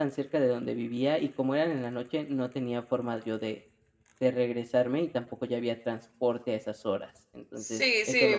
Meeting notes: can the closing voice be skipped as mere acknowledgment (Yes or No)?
No